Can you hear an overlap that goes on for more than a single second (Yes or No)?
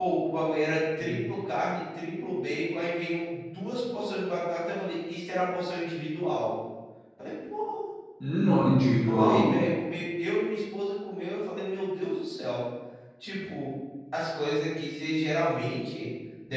No